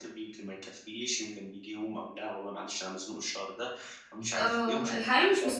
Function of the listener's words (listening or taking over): taking over